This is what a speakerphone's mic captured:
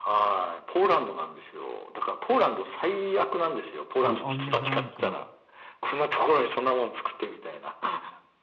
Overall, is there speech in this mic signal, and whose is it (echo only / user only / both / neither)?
both